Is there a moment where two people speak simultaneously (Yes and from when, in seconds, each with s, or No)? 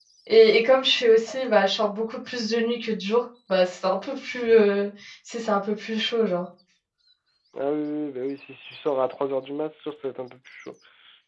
No